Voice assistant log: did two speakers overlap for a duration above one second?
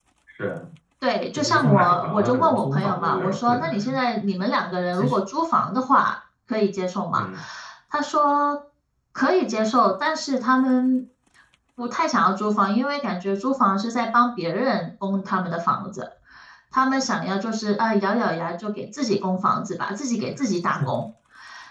Yes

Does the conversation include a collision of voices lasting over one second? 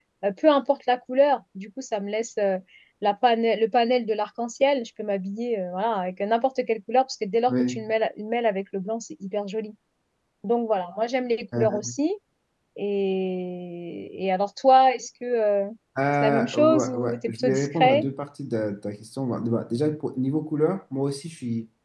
Yes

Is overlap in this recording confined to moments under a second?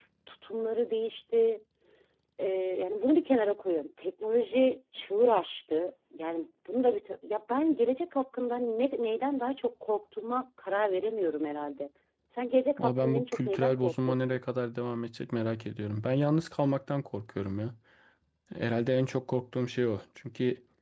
No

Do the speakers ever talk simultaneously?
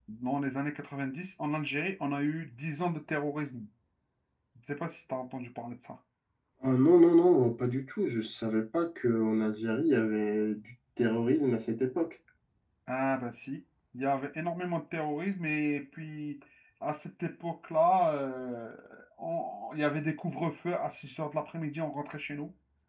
No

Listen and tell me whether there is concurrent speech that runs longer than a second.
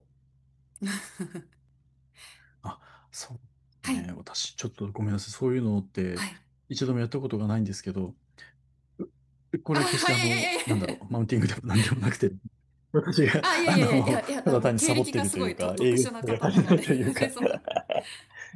Yes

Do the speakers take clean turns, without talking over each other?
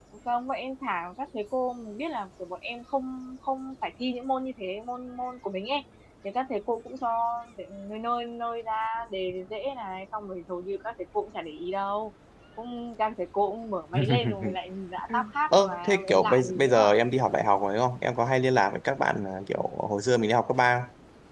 No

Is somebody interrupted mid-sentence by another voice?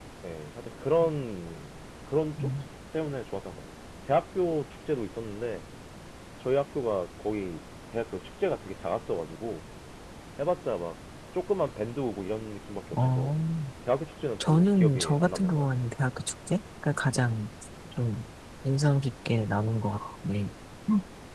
Yes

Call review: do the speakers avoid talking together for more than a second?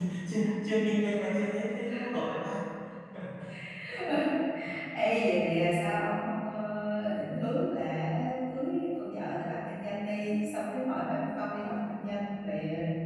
Yes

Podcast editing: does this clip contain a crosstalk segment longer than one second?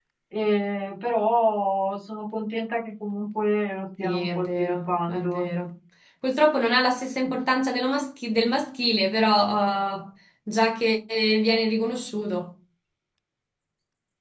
Yes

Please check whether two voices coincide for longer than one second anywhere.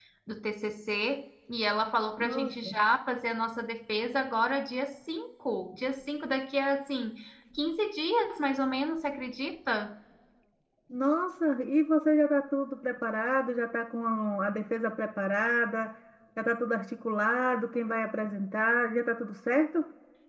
No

